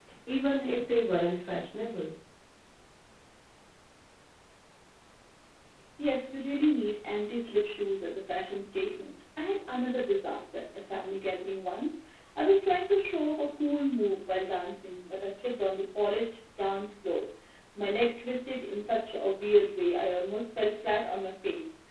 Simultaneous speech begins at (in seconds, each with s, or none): none